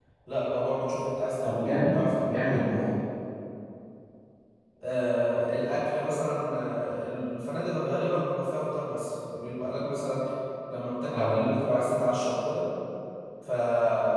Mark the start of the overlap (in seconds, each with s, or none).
1.4 s